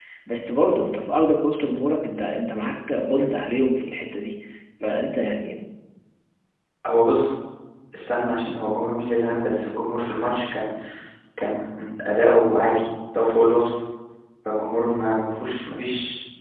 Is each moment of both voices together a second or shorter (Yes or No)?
Yes